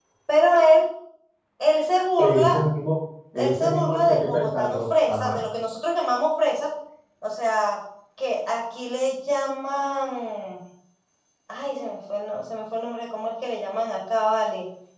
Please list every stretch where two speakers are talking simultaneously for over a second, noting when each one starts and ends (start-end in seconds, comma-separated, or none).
3.4-5.4